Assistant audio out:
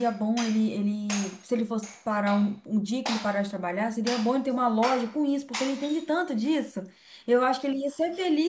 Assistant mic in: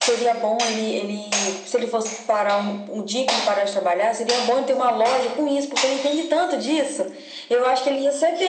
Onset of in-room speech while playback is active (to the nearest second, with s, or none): none